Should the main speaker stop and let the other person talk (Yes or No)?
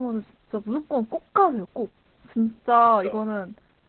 No